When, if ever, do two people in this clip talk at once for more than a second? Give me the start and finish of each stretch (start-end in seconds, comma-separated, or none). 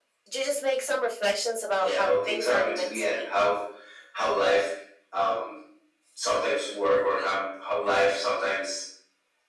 1.7-3.3